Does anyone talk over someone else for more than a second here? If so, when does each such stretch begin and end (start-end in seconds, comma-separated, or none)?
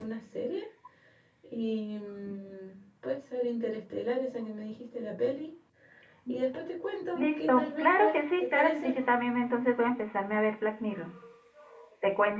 7.2-8.9